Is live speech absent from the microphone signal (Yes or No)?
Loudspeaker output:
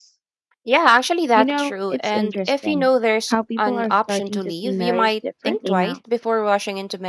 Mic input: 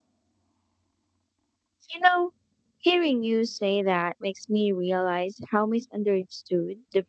No